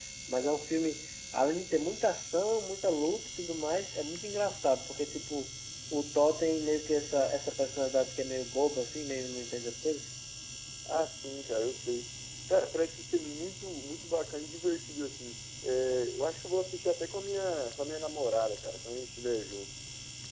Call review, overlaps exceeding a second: none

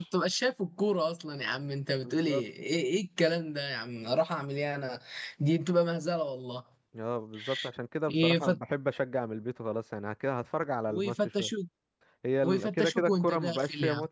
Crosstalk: present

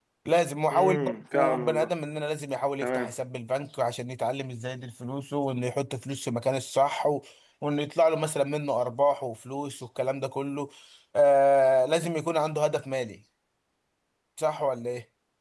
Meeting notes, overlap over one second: present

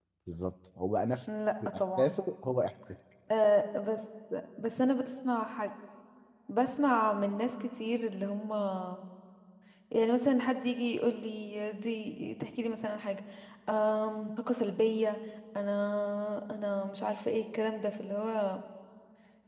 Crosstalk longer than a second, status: none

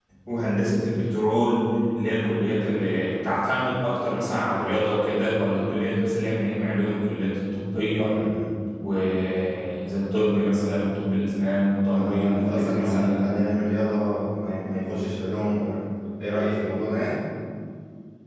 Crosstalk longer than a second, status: present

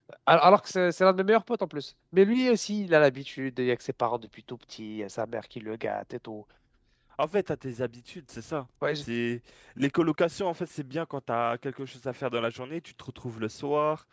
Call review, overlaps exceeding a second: none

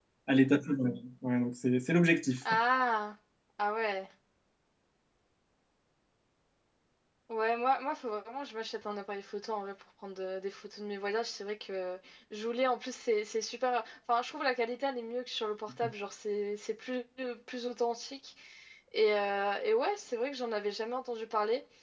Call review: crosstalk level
none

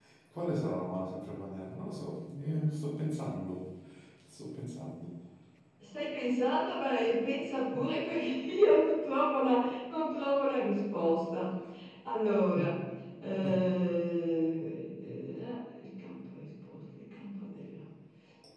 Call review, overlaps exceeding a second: none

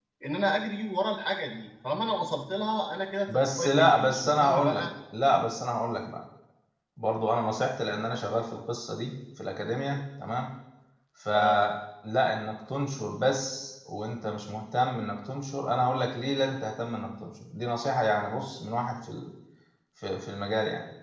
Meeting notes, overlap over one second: present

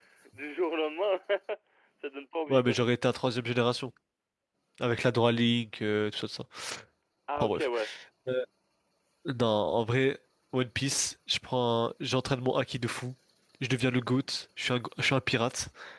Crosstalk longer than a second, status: none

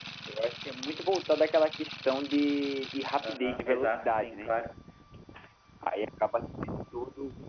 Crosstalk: present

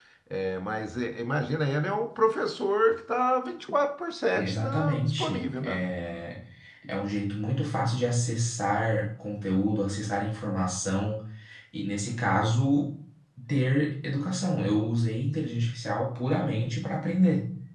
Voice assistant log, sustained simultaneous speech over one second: present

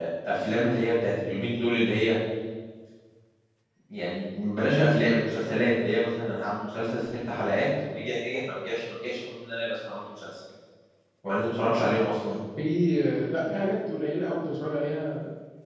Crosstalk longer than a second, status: none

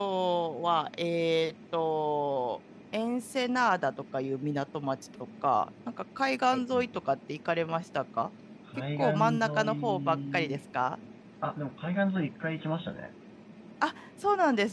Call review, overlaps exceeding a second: present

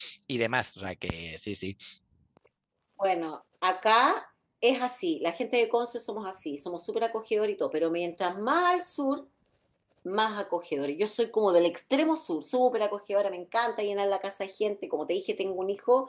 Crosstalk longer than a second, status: none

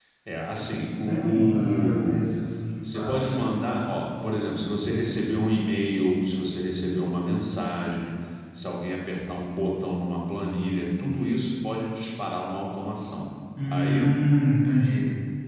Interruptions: present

